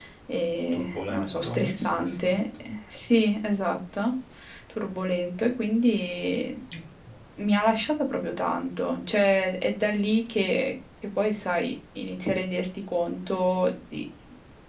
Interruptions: present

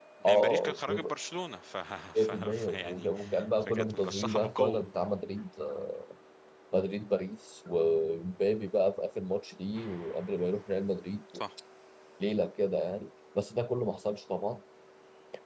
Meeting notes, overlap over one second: present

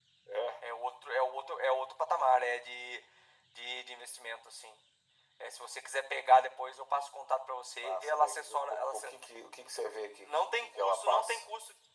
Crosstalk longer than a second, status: present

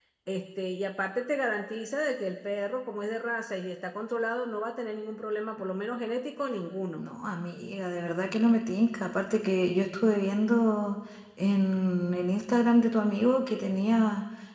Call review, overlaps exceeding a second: none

